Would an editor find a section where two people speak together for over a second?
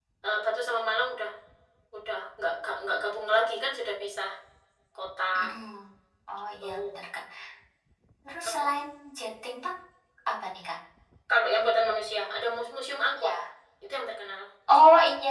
No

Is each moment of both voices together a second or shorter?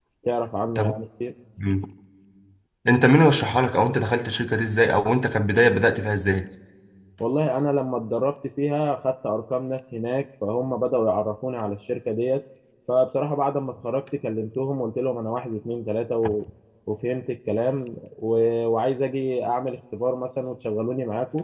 Yes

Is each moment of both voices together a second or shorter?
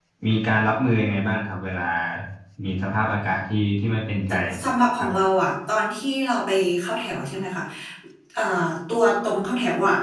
Yes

